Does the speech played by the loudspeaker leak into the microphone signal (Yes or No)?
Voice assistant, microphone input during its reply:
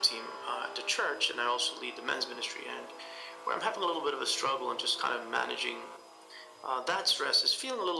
Yes